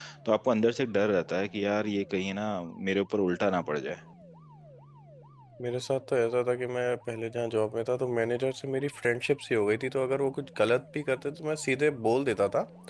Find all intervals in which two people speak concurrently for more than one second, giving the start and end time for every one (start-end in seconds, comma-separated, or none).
none